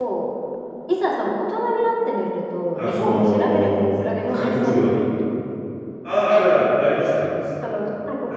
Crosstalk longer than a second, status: present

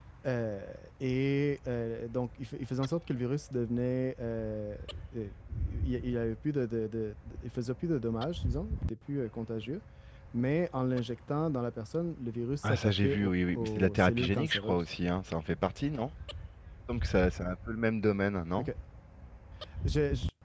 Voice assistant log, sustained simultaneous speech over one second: present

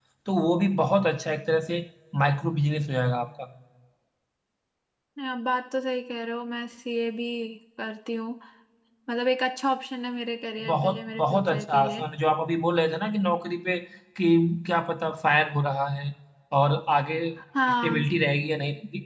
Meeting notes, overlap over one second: present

